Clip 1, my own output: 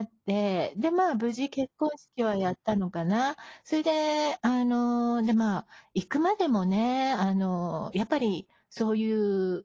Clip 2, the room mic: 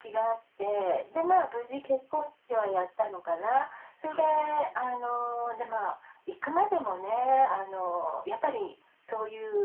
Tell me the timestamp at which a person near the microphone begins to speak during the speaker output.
4.1 s

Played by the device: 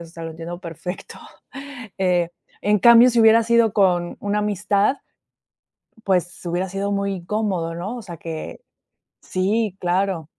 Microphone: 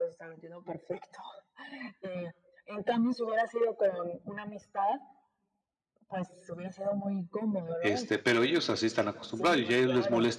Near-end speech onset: 7.8 s

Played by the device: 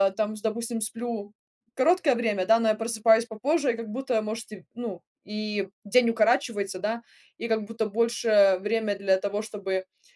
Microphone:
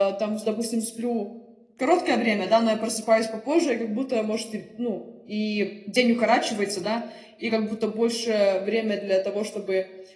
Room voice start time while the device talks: none

